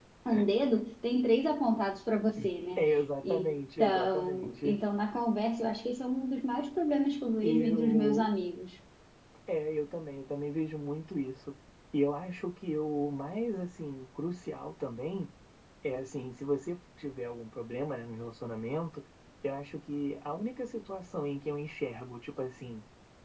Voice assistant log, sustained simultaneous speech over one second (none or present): present